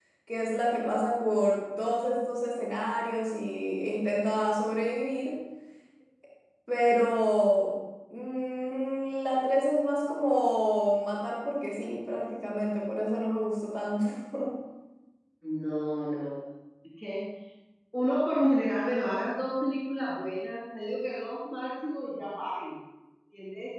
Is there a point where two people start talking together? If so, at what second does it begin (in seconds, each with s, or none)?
none